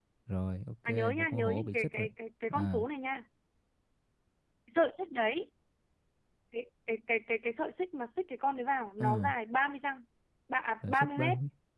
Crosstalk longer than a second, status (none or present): present